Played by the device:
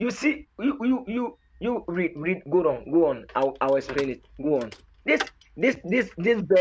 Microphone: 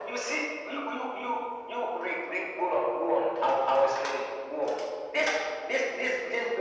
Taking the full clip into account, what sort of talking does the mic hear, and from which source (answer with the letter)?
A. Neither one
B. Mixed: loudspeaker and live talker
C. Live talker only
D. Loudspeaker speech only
D